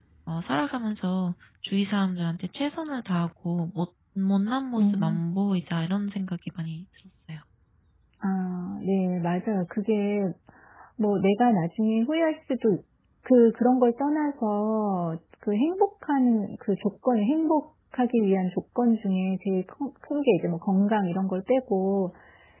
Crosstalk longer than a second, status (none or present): none